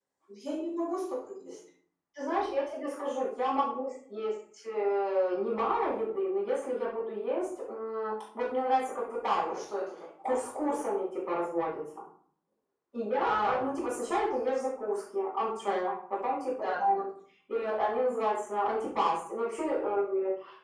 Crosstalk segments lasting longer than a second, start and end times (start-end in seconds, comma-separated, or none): none